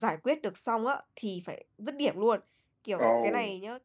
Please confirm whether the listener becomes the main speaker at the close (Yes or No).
No